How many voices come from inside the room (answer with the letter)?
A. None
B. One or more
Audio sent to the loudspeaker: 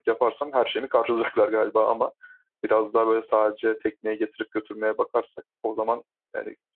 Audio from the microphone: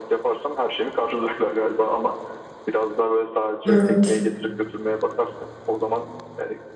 B